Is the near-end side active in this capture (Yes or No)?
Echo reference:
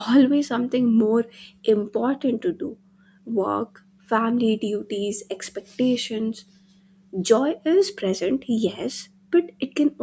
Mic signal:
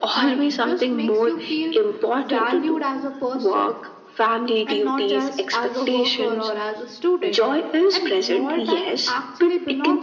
Yes